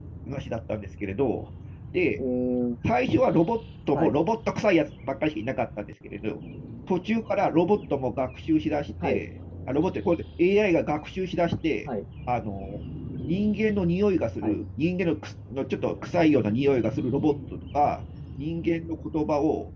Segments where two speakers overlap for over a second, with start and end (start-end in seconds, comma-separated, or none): none